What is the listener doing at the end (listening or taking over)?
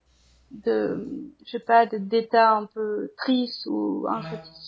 listening